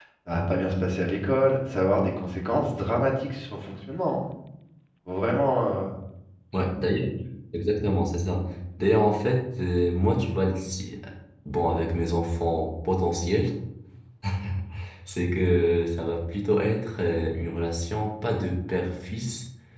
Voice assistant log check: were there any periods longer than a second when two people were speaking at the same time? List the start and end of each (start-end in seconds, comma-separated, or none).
none